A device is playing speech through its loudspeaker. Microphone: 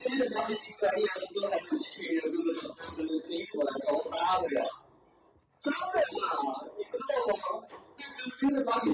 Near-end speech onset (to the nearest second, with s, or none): none